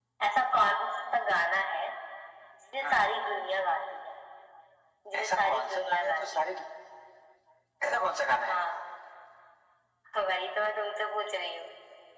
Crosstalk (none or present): present